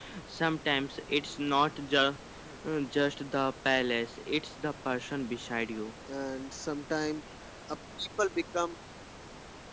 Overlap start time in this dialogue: none

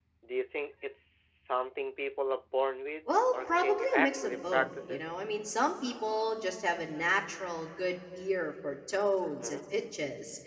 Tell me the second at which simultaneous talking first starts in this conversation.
3.3 s

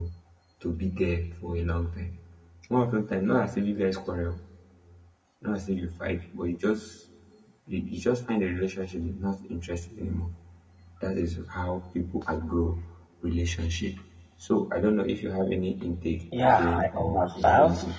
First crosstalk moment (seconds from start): 16.3 s

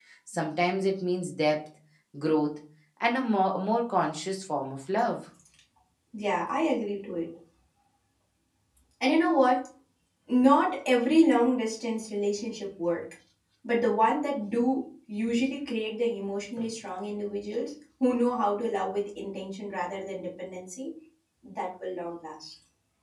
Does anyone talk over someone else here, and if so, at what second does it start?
none

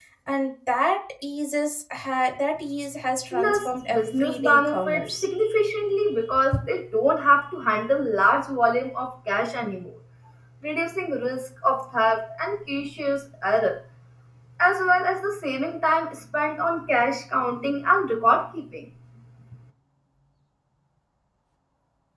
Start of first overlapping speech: 3.3 s

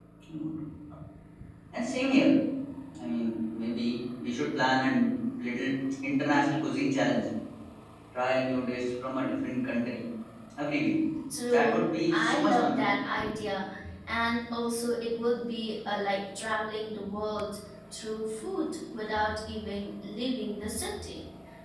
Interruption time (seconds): 11.5 s

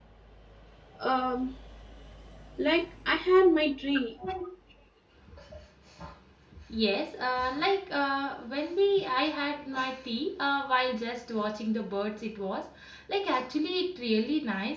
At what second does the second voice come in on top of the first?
none

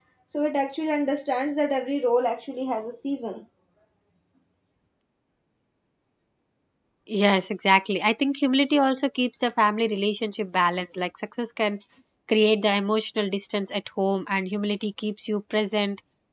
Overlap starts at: none

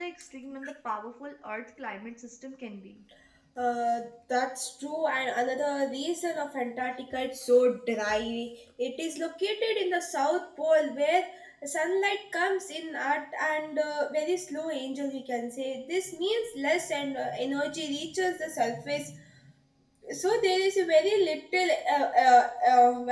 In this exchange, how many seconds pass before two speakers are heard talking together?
none

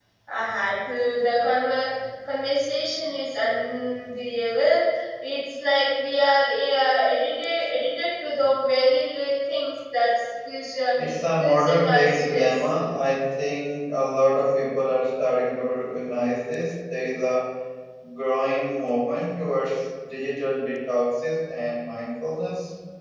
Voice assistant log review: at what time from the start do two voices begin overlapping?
11.4 s

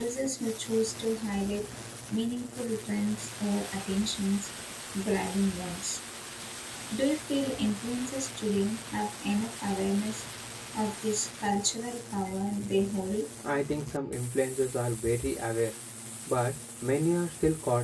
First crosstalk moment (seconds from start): none

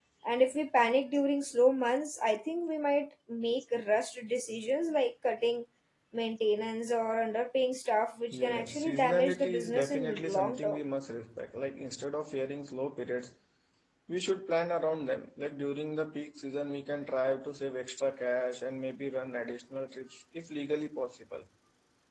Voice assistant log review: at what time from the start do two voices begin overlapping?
8.3 s

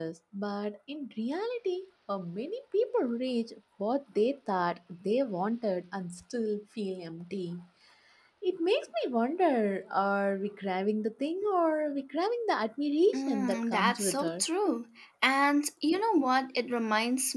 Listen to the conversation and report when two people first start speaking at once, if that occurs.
13.1 s

